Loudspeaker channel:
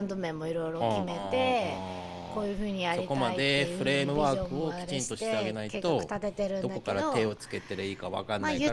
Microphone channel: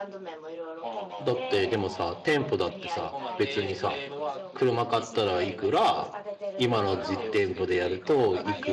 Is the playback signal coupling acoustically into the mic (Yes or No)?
Yes